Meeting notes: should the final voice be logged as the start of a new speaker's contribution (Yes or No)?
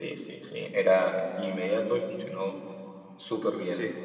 Yes